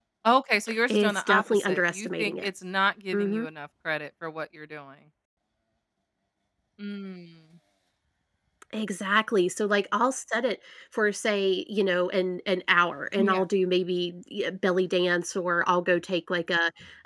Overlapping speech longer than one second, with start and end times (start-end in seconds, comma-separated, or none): 0.9-2.5